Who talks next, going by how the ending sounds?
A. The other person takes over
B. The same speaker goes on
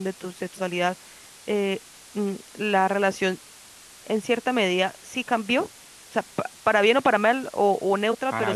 B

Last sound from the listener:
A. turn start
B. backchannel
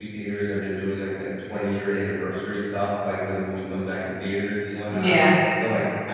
B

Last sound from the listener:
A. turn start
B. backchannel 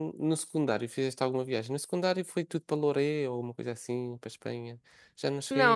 A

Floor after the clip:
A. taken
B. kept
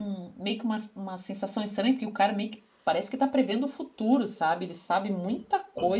B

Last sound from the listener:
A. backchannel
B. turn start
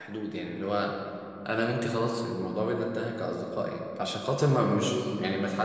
A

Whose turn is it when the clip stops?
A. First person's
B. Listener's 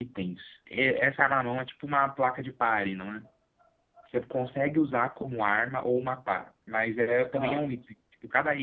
A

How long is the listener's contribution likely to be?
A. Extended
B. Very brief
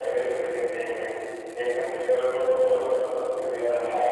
A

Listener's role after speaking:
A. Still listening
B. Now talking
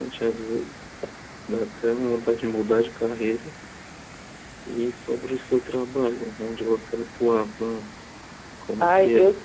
B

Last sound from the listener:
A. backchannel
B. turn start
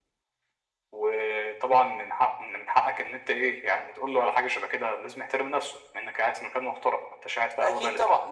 B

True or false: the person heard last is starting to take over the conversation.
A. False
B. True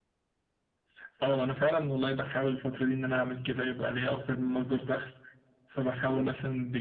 A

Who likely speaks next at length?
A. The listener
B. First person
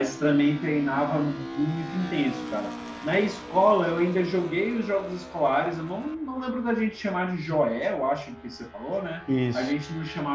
B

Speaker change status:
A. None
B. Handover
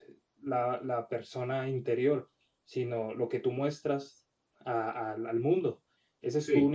A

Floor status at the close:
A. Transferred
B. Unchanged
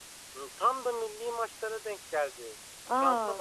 B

